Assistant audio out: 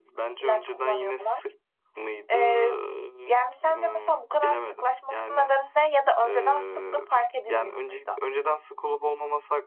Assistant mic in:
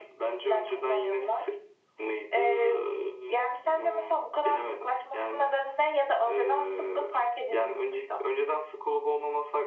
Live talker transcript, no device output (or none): none